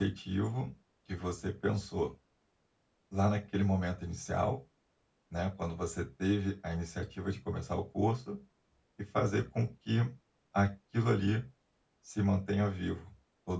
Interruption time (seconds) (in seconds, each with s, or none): none